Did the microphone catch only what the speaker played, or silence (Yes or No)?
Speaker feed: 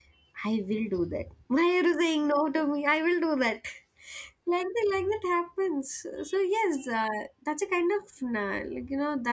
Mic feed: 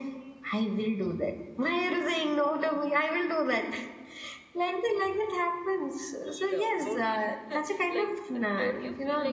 No